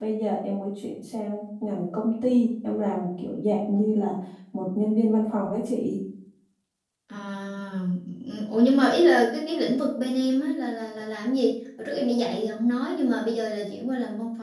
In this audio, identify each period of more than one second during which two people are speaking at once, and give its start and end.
none

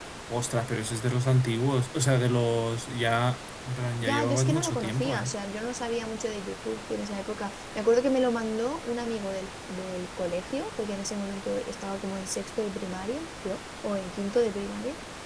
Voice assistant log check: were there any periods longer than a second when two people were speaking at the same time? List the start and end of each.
4.0-5.3

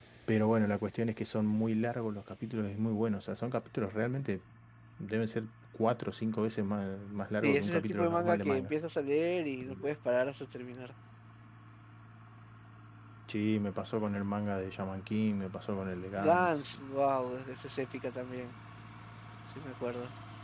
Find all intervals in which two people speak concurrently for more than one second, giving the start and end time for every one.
7.4-8.7

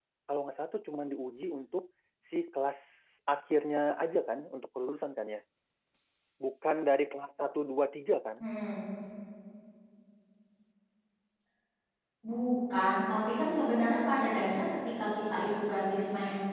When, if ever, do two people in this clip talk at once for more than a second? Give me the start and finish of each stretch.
none

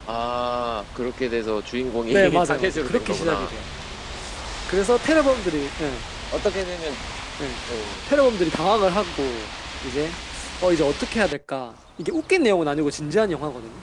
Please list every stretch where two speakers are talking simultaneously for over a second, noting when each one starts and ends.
2.1-3.5

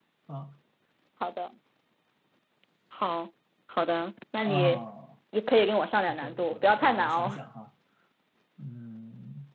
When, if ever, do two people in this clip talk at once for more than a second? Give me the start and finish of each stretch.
6.1-7.4

